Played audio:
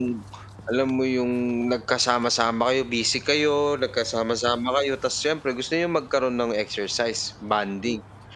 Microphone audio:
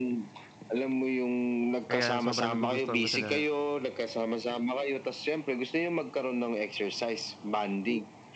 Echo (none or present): present